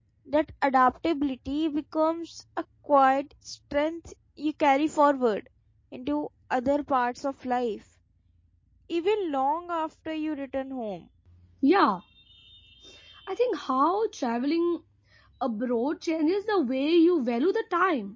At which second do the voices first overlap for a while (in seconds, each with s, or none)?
none